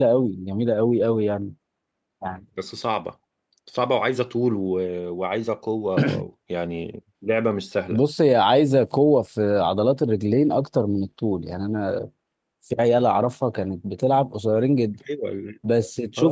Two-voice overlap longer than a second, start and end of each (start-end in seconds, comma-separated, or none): none